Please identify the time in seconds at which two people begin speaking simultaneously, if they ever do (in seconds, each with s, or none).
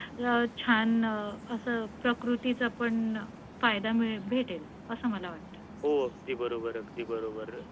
none